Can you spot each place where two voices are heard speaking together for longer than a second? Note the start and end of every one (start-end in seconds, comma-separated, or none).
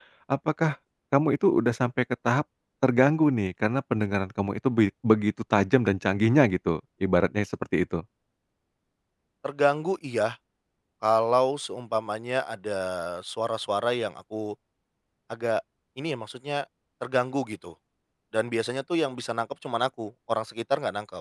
none